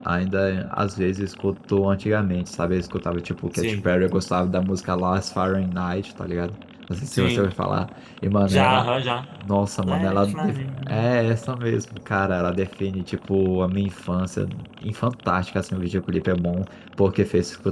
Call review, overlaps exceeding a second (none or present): present